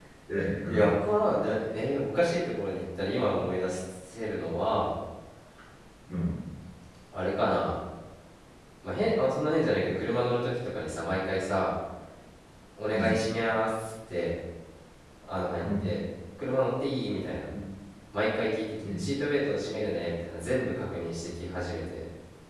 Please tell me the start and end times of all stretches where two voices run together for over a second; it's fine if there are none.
none

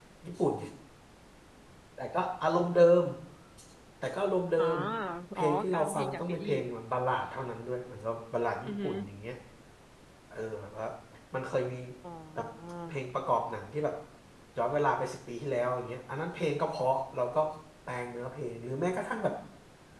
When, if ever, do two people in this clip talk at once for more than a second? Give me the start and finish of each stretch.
5.4-6.6

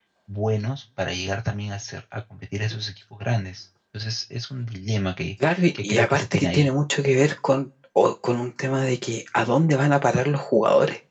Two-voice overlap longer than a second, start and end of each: 5.4-6.7

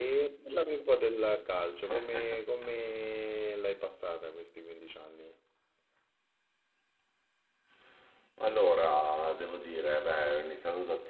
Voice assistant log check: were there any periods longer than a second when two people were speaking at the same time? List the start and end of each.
none

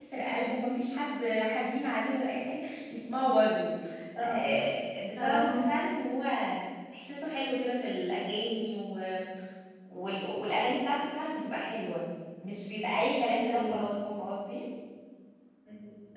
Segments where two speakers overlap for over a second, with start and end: none

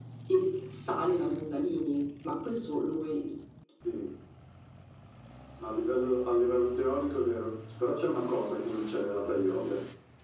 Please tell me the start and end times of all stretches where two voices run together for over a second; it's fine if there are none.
none

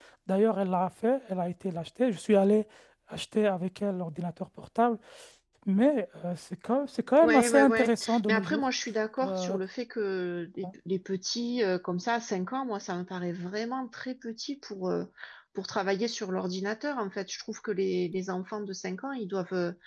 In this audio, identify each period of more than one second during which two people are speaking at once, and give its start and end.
7.2-8.7

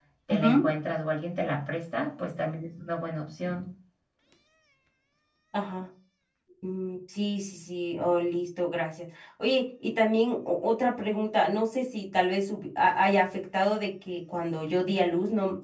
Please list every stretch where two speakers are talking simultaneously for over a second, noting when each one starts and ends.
none

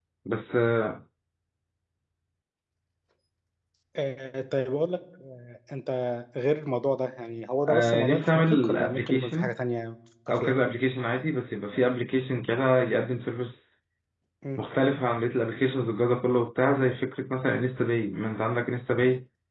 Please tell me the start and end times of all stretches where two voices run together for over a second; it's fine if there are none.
7.7-9.5

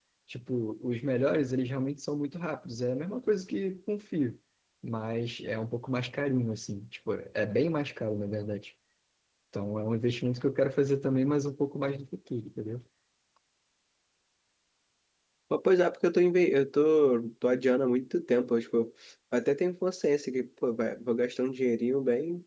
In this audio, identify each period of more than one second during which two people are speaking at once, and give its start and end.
none

